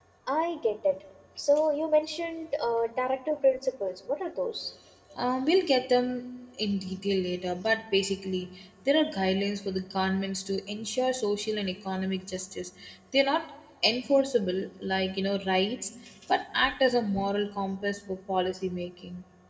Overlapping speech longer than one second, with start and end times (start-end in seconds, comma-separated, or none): none